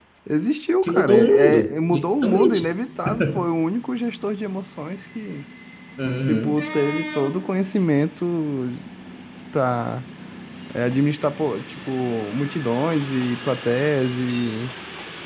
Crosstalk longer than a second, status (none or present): present